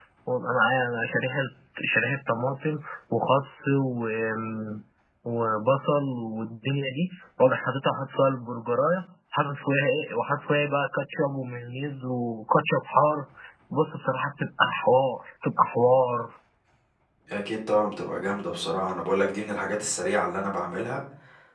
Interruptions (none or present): none